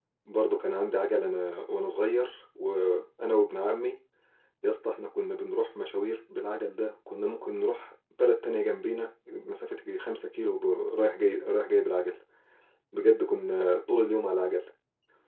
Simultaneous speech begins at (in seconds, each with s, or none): none